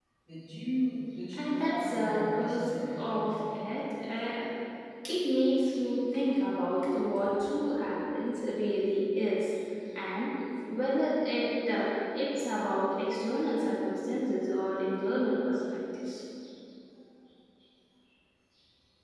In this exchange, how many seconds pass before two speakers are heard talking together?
1 s

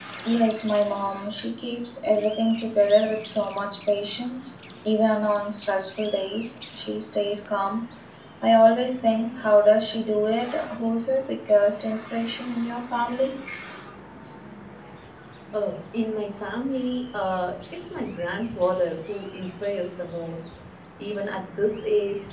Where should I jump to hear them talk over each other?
none

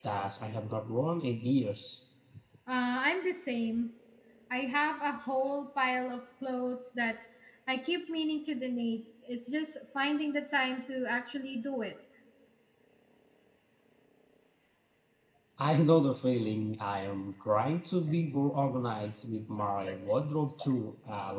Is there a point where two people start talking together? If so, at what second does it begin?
none

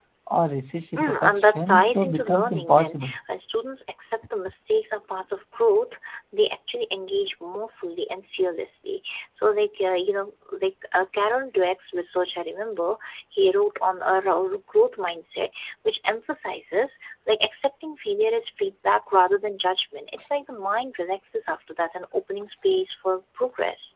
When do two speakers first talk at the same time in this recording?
1 s

